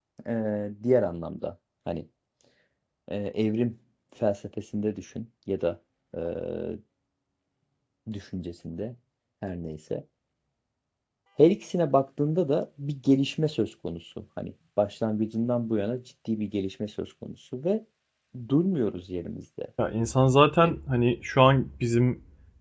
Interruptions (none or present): none